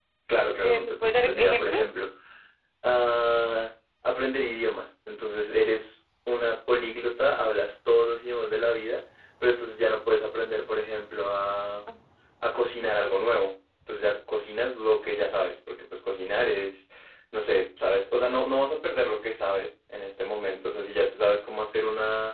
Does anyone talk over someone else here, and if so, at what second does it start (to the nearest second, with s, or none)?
1 s